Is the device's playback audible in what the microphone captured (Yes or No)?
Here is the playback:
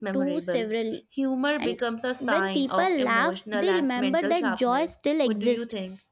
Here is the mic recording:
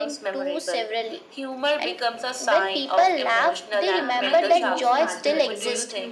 Yes